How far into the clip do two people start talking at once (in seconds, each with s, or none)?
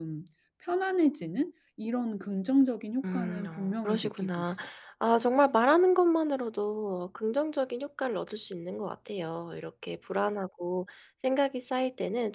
3.0 s